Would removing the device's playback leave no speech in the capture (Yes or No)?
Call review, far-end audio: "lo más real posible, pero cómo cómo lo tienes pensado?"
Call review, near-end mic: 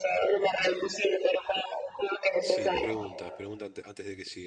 No